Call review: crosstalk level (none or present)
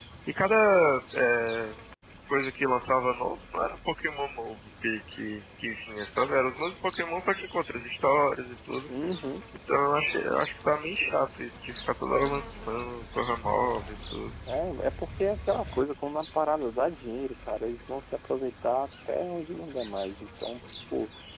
none